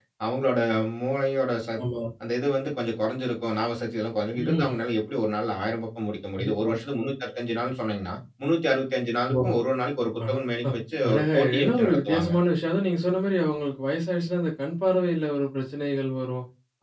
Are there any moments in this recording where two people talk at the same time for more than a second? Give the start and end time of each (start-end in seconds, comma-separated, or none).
11.1-12.3